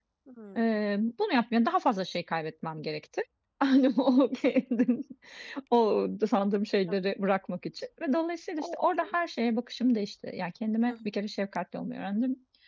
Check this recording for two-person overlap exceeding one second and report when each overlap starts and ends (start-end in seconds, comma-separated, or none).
none